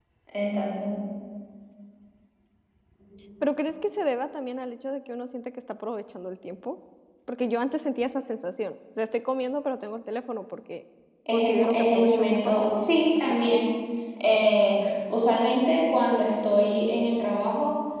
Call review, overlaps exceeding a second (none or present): present